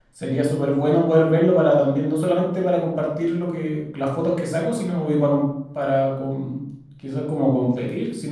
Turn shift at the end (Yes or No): No